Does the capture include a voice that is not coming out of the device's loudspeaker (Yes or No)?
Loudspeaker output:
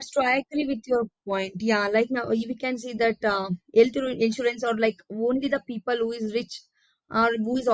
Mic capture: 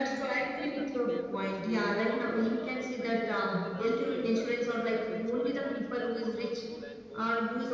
Yes